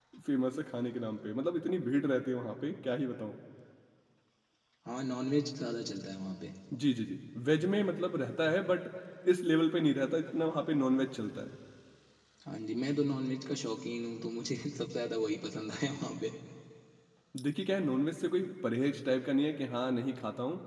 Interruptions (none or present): none